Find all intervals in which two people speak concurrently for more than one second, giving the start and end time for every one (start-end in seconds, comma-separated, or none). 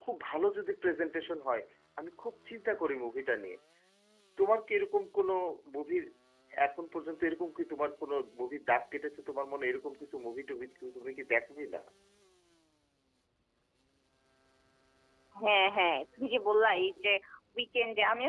none